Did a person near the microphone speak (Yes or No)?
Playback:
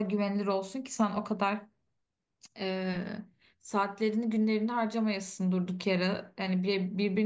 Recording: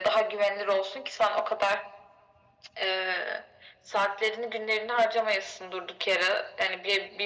No